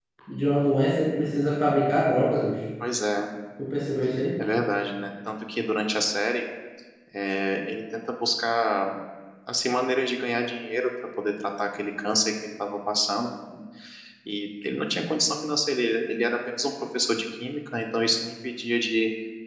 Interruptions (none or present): none